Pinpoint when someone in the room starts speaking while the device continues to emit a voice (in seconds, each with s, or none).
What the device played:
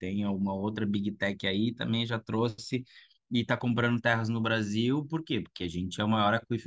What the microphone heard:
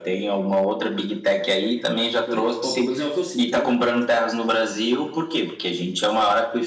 2.2 s